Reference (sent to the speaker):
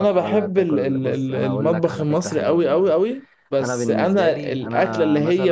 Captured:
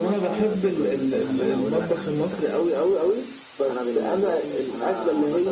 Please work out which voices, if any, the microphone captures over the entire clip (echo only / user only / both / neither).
both